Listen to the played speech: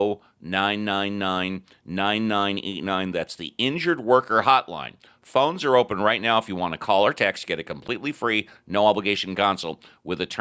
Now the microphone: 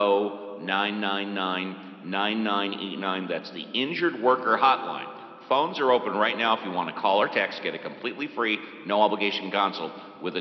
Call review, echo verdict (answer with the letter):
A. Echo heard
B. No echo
A